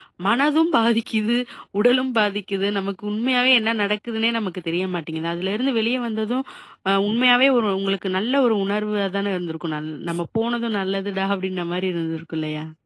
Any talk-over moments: No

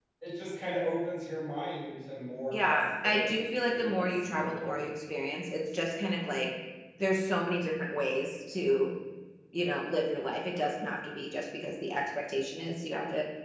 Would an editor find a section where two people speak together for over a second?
Yes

